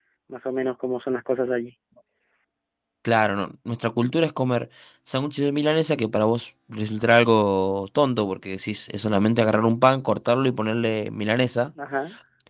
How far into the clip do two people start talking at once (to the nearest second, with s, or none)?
none